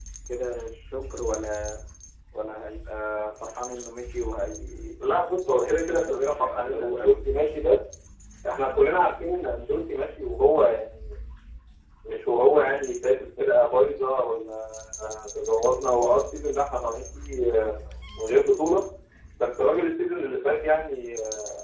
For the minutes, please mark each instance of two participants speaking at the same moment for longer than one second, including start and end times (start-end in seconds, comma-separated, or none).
5.4-7.3